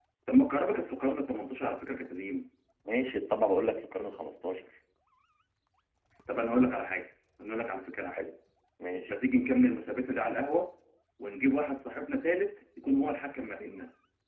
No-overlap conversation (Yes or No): Yes